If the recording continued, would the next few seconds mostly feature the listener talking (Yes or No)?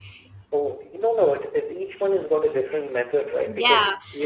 Yes